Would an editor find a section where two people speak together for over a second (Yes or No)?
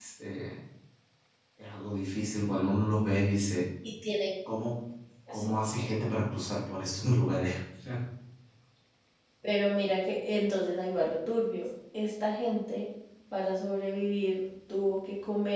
No